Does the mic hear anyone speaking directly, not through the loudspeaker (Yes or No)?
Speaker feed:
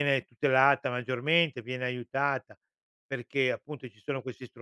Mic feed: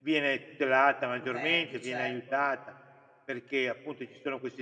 Yes